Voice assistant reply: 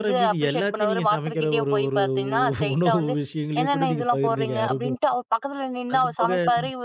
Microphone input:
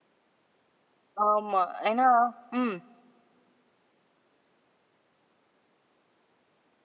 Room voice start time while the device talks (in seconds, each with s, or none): 1.2 s